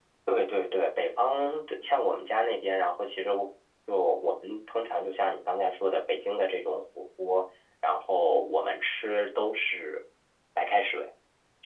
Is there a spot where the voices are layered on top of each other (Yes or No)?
No